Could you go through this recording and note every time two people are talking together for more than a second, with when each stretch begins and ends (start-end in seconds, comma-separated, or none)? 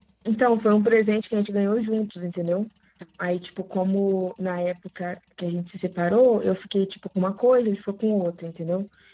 none